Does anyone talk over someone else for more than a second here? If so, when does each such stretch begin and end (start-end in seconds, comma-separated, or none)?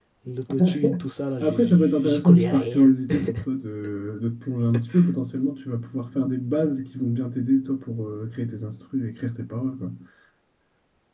1.4-2.9